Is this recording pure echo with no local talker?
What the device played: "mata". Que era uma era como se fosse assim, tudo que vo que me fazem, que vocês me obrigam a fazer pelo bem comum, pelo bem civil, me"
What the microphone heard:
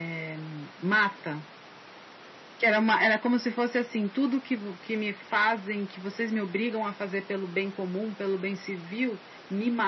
Yes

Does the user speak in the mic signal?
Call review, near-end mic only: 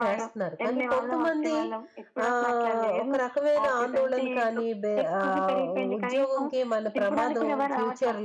Yes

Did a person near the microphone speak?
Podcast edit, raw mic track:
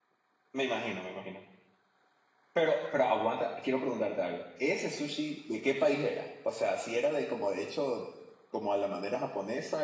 Yes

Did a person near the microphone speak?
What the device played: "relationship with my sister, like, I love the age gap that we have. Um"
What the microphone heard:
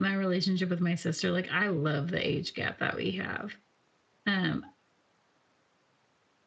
No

